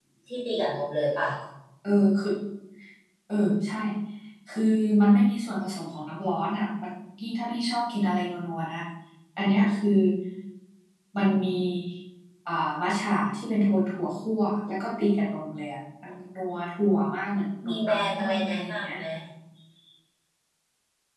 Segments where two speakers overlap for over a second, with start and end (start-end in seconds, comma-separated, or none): 17.7-18.9